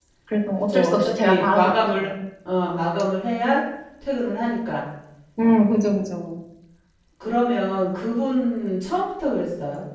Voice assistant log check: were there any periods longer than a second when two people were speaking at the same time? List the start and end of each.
0.6-2.1

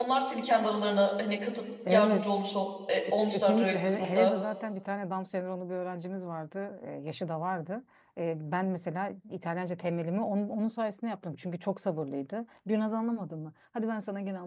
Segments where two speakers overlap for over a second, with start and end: 3.1-4.3

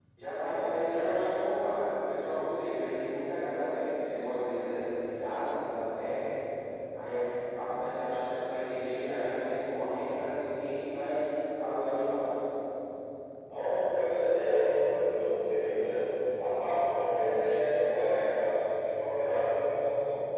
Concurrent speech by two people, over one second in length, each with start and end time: none

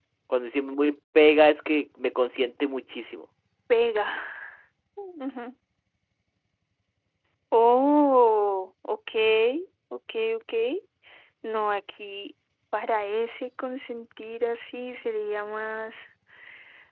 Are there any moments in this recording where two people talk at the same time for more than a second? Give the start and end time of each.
none

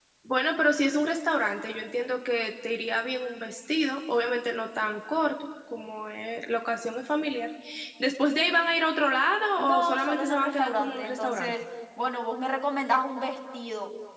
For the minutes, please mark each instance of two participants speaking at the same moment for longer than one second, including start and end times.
9.6-11.6

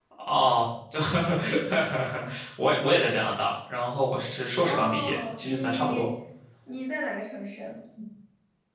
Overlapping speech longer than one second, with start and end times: 4.6-6.0

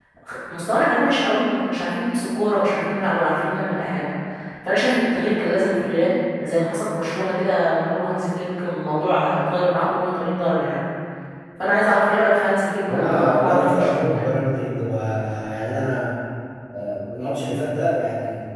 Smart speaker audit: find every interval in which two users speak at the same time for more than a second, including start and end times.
12.9-14.3

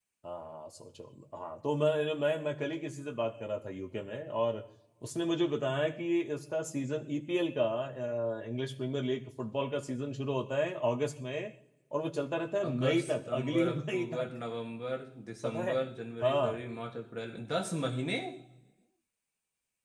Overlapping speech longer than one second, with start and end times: 12.7-14.3

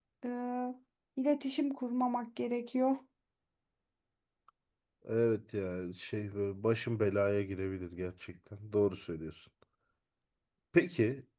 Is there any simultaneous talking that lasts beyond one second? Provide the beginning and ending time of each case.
none

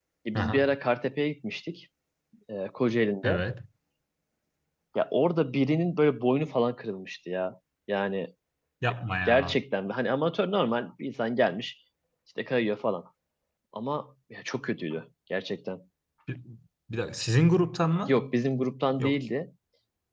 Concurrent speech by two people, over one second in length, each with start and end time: none

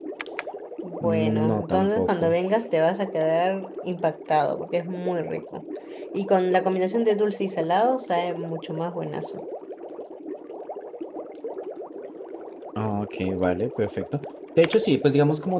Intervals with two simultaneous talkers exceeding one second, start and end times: 1.0-2.3

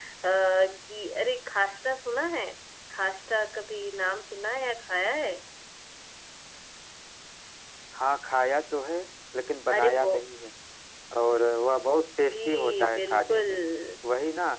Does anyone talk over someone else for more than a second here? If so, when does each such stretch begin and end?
12.3-13.5

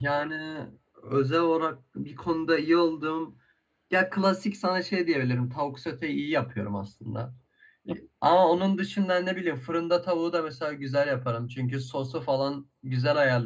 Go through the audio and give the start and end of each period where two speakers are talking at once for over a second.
none

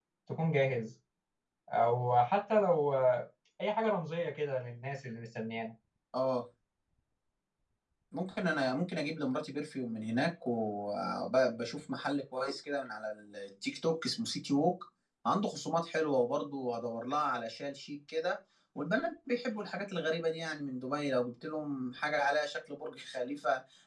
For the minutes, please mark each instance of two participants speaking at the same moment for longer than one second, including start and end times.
none

